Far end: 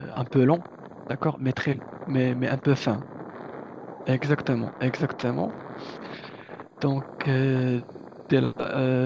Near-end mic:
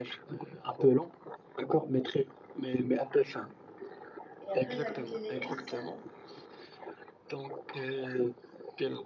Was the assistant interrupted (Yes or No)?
Yes